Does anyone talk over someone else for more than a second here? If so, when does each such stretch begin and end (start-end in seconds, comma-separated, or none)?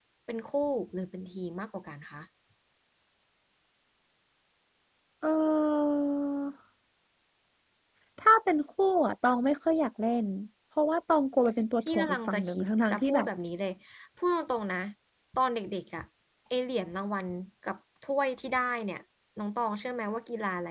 11.9-13.3